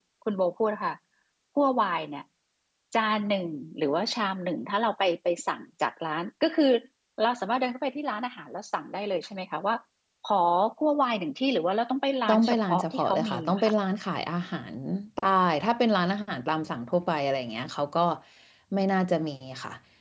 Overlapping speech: Yes, from 12.3 s

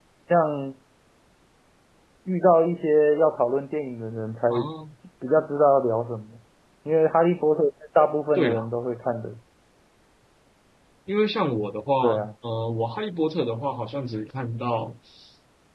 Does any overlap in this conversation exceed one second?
No

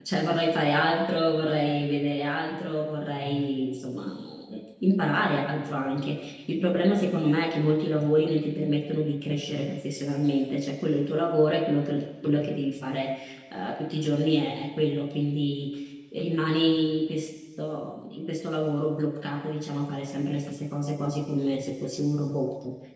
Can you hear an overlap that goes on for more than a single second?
No

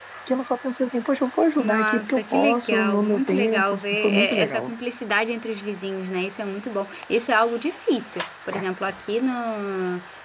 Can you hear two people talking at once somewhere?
Yes, from 1.6 s

